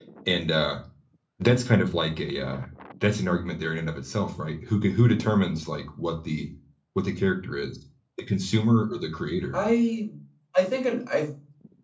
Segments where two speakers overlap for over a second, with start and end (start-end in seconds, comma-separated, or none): none